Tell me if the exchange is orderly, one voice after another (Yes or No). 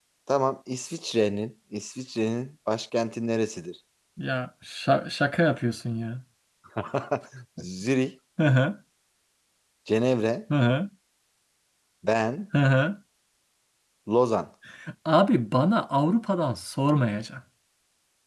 Yes